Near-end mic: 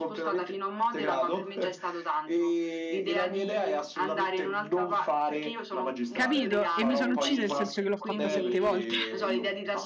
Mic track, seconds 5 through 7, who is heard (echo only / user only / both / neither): both